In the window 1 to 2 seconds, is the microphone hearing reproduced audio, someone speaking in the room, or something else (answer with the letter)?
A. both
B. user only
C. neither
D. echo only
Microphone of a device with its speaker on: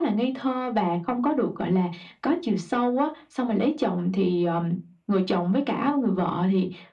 D